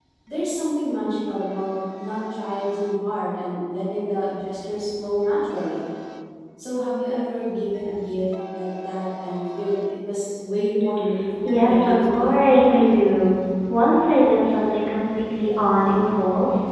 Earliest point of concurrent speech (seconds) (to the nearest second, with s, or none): 11 s